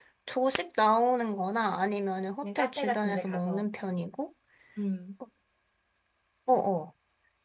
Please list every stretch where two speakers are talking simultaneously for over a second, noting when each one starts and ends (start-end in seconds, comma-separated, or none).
2.4-3.7